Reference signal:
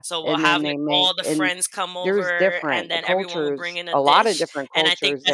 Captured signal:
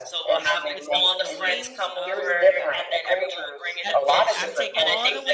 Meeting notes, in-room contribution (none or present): present